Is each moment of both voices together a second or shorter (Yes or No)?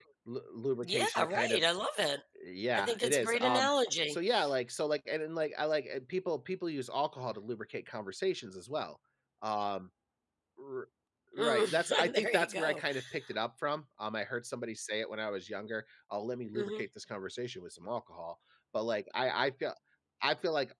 No